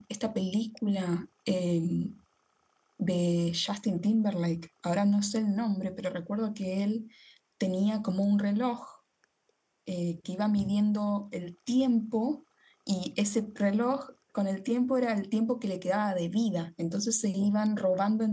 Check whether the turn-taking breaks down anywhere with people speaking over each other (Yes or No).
No